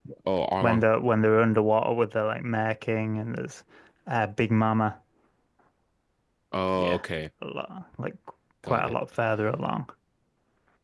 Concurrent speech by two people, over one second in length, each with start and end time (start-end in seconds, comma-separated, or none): none